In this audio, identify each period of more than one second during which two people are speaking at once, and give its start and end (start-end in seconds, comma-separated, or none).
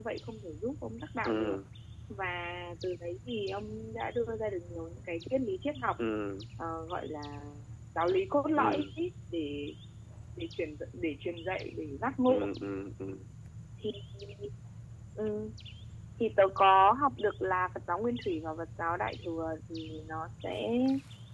none